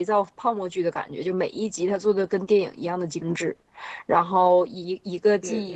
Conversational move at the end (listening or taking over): listening